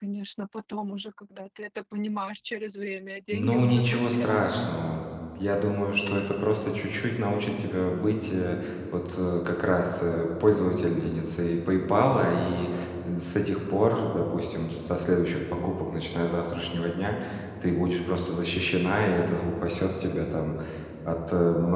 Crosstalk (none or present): present